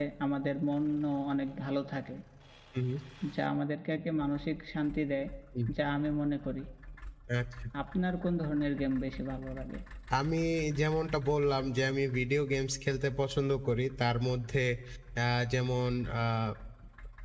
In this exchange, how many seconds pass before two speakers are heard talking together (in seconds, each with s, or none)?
none